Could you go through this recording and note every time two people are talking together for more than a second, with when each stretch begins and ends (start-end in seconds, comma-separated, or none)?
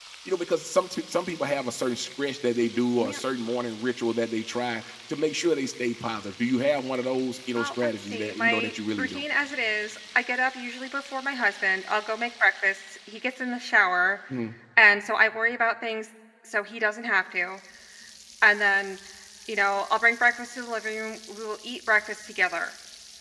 7.6-9.2